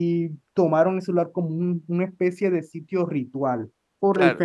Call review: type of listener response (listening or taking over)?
listening